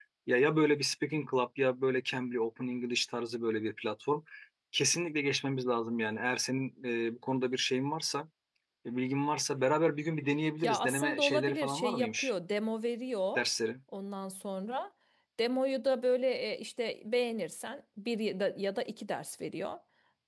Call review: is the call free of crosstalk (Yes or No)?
No